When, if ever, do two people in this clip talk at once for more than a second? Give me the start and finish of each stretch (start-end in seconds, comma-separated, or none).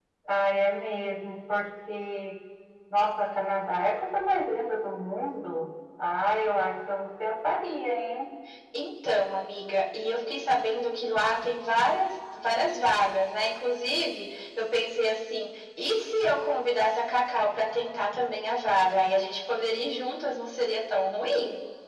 none